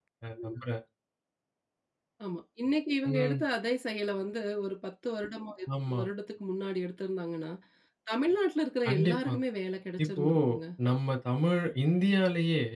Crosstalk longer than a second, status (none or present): none